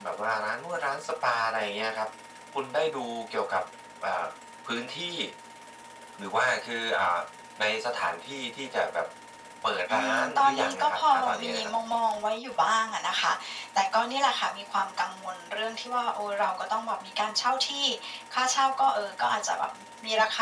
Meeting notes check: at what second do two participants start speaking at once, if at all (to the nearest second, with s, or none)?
10 s